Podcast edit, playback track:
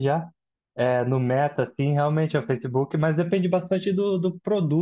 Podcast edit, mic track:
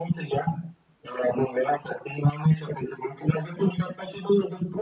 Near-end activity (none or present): none